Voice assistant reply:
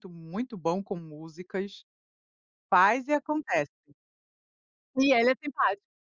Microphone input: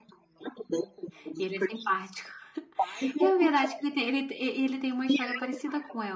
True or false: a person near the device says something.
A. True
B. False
A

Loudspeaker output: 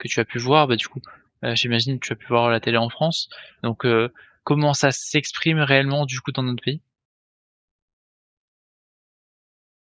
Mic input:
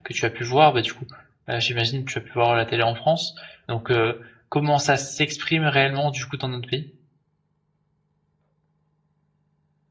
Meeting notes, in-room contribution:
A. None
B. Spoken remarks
A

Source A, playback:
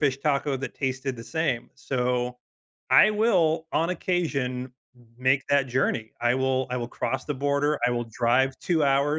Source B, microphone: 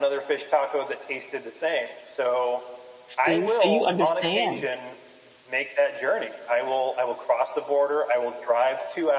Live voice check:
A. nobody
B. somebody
B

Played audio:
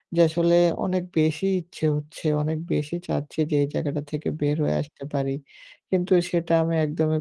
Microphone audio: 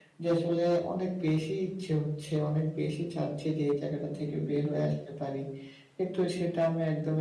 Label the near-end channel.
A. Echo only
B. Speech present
A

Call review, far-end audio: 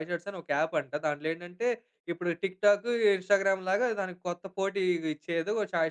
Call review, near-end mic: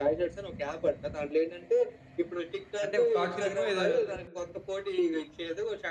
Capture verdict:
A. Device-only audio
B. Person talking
B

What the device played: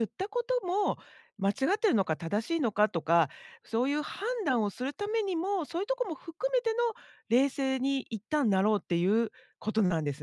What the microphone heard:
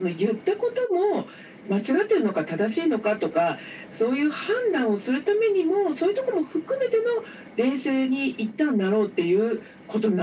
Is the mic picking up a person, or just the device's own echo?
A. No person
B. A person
A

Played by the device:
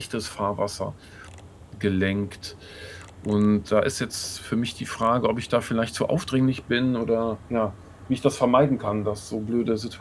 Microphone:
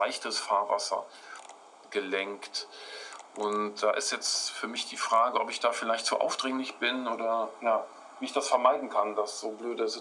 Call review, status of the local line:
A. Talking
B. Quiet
B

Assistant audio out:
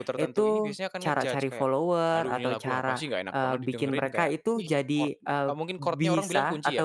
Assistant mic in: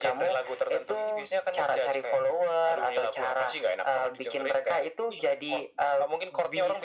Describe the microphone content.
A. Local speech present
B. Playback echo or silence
B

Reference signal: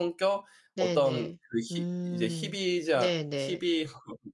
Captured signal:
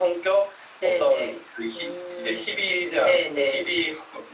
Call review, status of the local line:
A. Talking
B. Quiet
B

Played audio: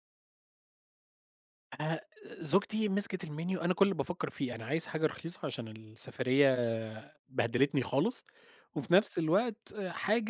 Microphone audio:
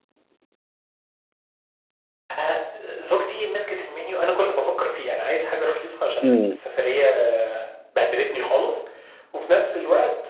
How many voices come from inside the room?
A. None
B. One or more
B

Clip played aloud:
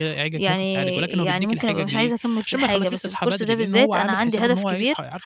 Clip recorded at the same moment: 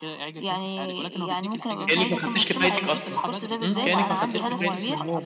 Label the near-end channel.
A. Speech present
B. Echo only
A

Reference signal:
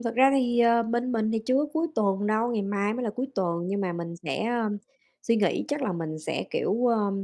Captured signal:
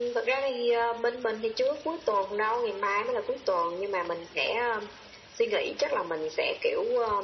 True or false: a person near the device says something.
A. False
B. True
A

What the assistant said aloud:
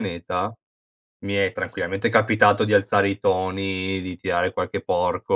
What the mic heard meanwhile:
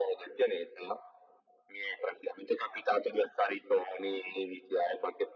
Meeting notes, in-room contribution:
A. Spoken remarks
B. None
B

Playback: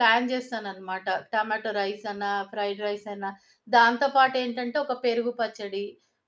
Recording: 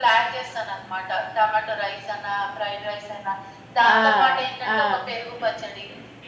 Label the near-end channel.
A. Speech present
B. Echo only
A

